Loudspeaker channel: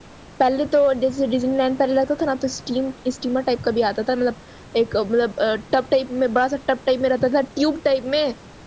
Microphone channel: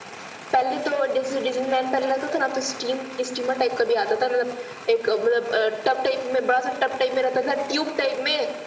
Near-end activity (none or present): none